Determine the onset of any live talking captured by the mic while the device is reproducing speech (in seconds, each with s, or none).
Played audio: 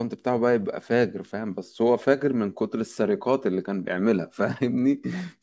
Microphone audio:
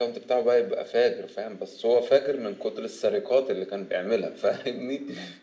none